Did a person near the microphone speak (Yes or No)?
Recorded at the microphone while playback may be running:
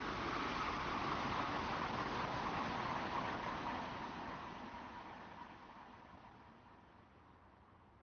No